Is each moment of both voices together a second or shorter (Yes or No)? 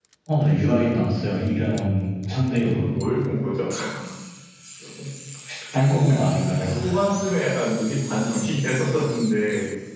Yes